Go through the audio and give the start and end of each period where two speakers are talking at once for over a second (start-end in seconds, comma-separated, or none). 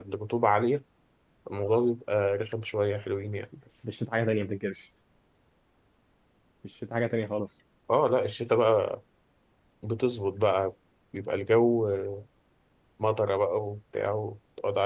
none